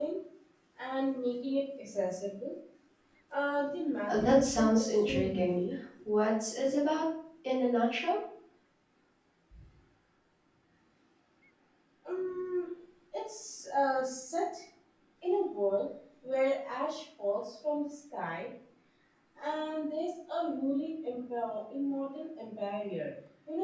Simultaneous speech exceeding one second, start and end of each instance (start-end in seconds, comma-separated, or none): 4.1-5.6